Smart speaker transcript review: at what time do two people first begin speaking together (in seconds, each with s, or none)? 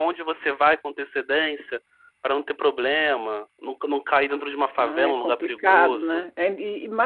4.8 s